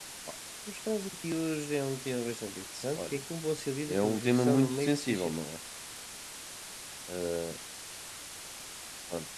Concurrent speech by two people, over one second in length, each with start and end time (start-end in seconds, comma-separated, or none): 3.9-5.3